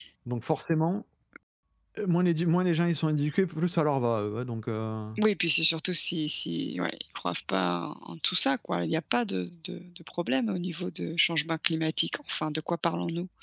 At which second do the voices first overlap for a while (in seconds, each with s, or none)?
none